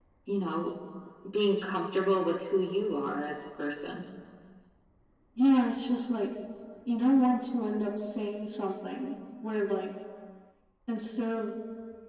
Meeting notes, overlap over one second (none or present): none